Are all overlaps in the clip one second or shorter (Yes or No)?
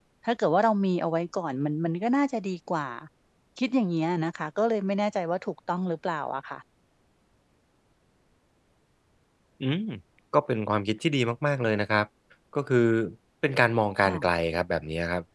Yes